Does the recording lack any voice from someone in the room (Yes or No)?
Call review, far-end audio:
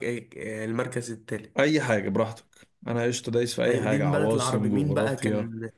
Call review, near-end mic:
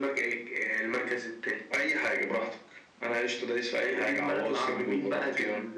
Yes